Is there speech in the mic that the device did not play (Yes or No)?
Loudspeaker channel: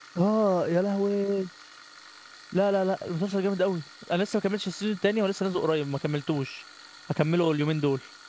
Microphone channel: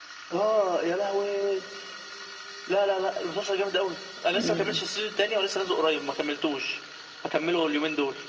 Yes